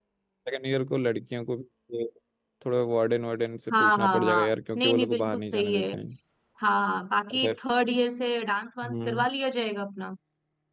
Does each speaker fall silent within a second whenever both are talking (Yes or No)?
No